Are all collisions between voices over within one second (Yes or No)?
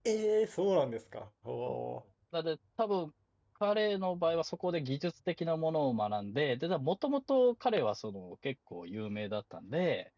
Yes